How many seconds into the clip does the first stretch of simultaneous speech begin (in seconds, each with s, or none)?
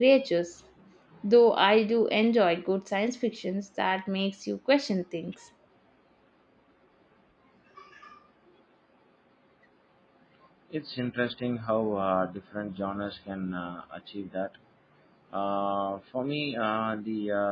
none